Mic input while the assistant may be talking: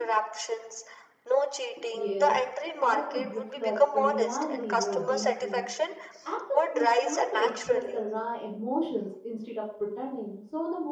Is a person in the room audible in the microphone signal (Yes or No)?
Yes